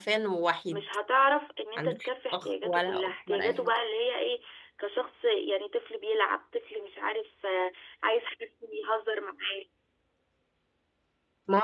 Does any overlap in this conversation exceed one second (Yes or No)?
Yes